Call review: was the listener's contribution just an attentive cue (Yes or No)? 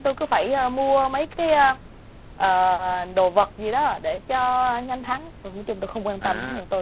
No